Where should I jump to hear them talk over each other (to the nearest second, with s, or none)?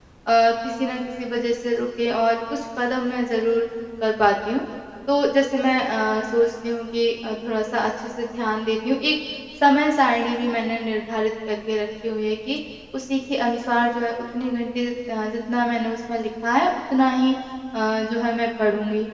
none